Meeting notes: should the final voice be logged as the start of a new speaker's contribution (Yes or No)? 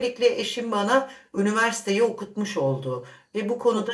No